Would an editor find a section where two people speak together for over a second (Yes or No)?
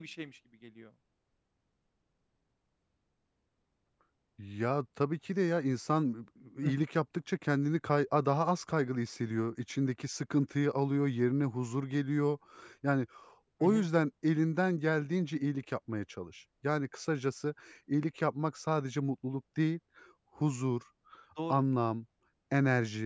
No